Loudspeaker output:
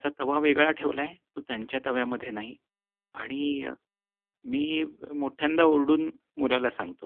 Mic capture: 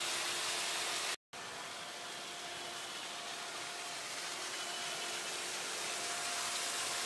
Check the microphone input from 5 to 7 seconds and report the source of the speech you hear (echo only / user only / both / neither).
neither